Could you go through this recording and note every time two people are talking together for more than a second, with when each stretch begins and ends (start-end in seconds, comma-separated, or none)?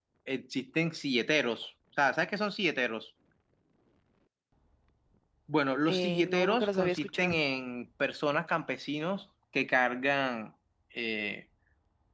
5.9-7.4